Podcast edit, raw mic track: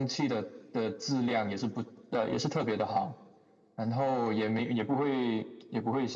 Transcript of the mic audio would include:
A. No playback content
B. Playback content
B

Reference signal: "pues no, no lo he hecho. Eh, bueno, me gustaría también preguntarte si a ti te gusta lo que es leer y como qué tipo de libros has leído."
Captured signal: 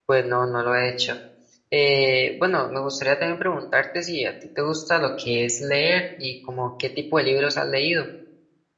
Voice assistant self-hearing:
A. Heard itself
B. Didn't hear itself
A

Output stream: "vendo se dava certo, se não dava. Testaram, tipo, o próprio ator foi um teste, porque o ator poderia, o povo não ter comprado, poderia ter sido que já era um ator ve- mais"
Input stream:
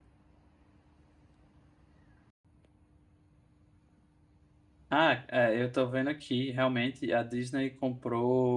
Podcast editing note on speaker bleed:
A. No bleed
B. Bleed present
A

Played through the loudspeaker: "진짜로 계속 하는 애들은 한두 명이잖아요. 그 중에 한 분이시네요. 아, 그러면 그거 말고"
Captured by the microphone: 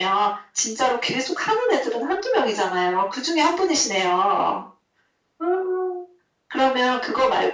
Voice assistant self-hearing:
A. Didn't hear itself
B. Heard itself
B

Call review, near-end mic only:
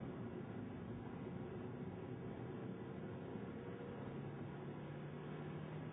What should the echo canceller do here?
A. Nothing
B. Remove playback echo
A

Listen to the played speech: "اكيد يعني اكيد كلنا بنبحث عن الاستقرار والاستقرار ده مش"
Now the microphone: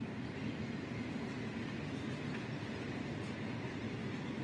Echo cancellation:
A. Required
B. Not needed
B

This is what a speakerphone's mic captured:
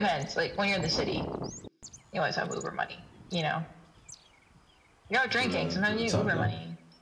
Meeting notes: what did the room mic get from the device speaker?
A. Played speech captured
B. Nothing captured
A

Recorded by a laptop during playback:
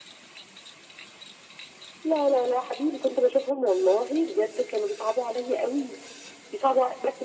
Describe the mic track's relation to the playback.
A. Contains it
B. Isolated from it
A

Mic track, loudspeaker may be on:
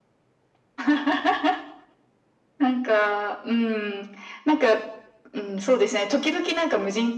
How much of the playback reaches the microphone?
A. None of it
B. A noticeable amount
B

